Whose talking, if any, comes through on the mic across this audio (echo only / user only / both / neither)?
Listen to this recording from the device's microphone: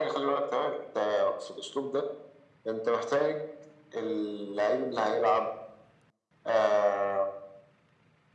echo only